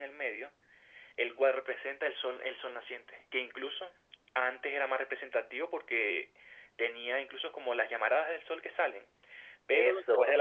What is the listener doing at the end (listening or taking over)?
listening